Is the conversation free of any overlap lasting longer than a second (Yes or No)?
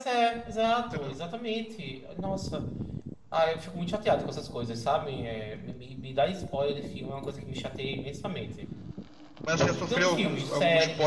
No